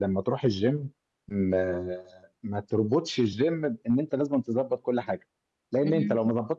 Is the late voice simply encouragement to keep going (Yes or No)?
Yes